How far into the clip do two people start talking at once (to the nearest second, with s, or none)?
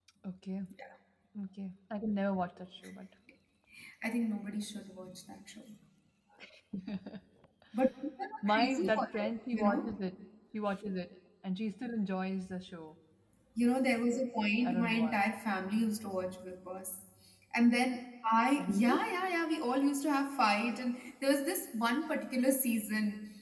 8 s